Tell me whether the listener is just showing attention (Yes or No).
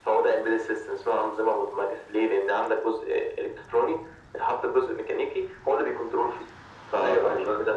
No